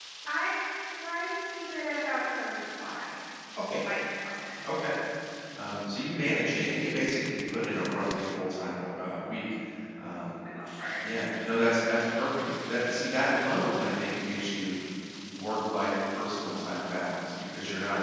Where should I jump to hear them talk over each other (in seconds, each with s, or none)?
none